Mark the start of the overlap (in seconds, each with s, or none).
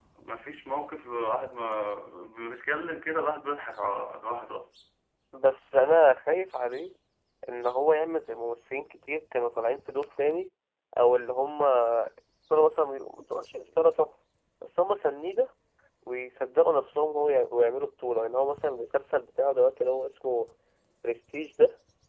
none